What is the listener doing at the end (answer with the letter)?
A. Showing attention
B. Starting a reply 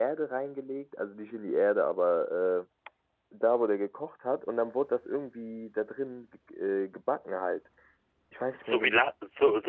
B